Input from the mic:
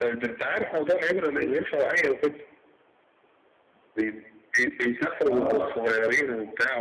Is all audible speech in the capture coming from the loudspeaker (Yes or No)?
No